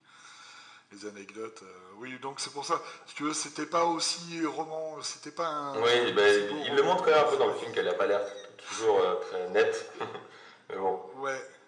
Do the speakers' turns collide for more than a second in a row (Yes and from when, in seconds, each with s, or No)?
Yes, from 5.7 s